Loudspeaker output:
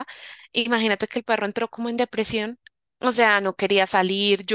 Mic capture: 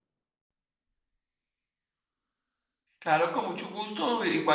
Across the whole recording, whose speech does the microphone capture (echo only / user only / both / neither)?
user only